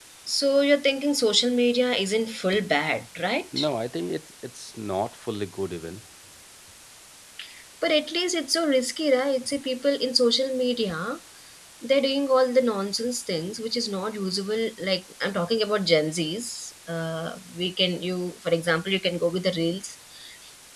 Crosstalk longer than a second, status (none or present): none